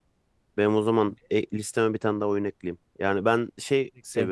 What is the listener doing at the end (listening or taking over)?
listening